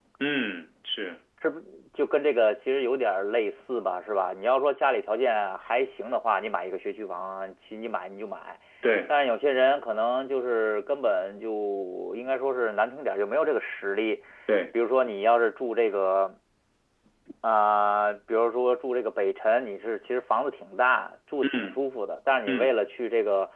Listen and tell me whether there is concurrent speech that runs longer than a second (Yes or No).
No